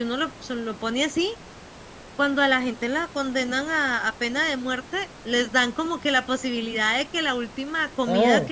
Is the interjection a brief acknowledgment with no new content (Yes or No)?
Yes